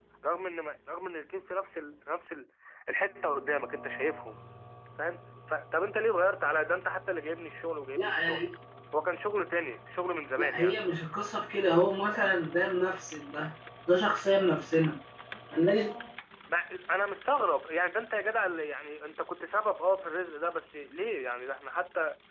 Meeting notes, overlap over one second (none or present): none